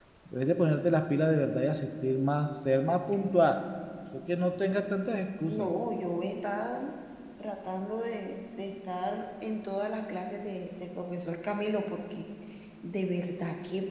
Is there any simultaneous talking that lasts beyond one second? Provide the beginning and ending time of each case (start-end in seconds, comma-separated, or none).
none